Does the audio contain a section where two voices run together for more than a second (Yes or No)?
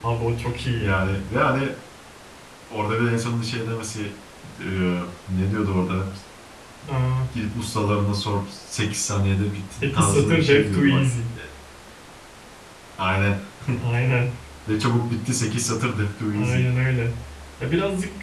Yes